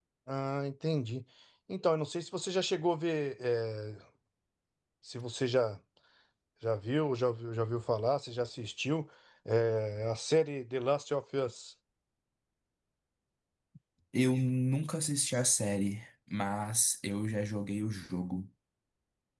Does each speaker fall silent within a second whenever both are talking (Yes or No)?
Yes